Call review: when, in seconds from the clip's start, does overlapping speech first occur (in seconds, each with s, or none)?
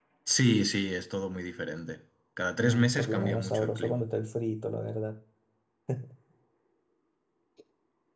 2.6 s